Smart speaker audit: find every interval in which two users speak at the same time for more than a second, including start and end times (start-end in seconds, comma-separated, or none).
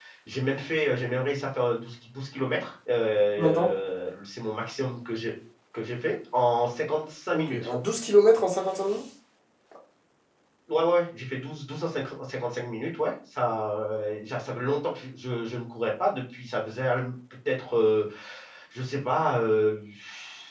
none